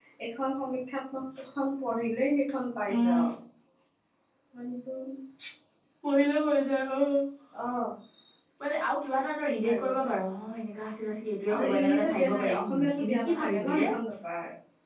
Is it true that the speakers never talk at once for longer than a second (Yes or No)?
No